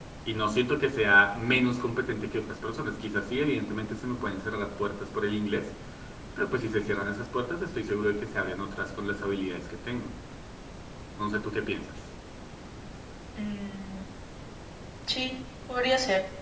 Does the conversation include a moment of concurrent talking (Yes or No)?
No